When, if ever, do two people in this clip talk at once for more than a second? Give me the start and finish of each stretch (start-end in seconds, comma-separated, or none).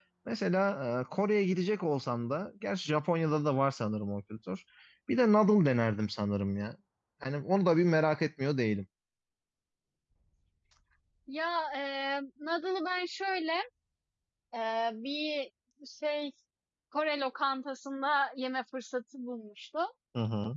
none